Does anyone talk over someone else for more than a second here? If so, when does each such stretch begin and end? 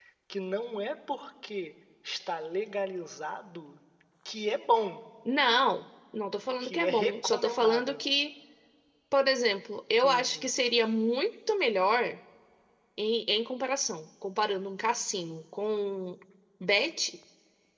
6.6-8.0

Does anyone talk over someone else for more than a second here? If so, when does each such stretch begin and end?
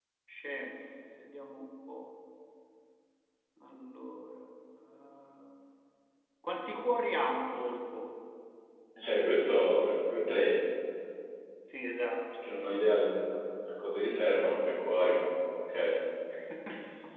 none

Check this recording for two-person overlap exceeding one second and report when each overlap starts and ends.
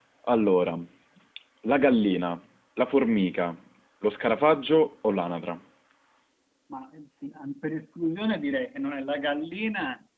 none

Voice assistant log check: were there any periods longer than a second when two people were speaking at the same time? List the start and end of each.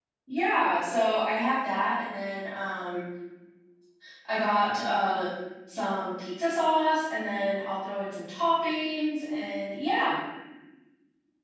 none

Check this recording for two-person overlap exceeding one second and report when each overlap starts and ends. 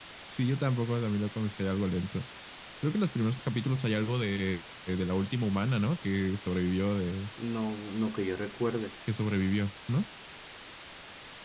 none

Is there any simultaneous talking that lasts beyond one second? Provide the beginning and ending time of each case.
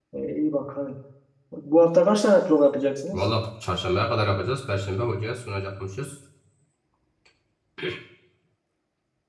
none

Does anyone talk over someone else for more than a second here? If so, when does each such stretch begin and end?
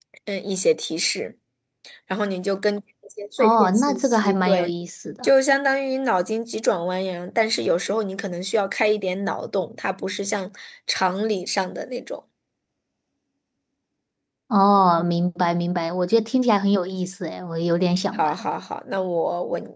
3.4-4.7

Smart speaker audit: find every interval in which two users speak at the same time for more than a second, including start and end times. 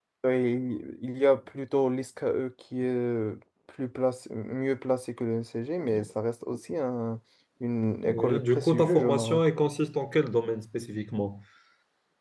8.1-9.5

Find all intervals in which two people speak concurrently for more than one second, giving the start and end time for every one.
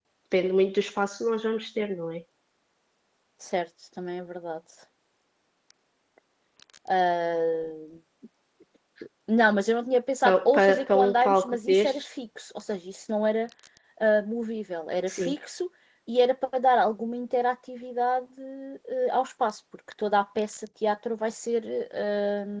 10.2-12.1

